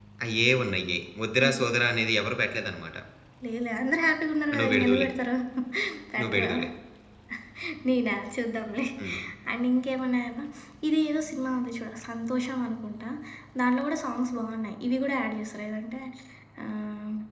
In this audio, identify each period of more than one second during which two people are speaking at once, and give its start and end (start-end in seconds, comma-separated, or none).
none